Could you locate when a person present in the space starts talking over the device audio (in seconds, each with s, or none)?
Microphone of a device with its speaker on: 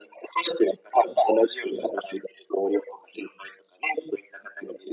none